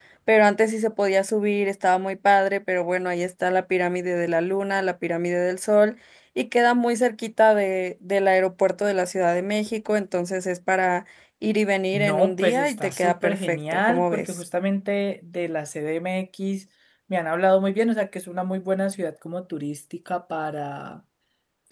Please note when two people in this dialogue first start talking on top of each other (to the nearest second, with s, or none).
12 s